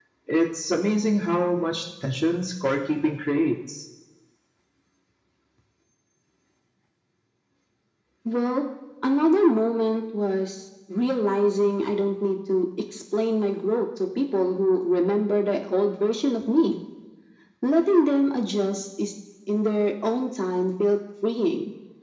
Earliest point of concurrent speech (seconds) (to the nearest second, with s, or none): none